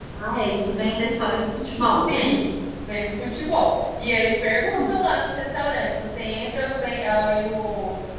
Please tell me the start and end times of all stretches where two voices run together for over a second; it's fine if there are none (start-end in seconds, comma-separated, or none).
none